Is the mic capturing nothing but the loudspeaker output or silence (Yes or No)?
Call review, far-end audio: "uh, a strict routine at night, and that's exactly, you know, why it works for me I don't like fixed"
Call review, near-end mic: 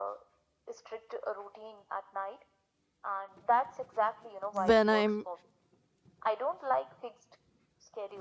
No